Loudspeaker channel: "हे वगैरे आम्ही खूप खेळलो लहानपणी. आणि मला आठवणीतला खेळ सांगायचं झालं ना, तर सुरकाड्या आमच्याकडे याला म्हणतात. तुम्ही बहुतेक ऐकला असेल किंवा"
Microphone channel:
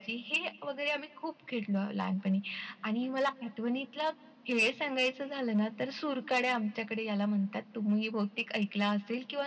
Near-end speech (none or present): none